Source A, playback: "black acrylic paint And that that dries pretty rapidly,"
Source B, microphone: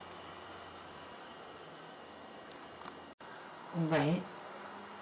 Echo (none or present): none